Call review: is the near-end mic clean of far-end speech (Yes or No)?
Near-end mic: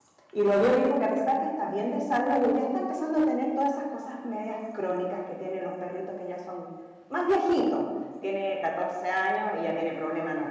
Yes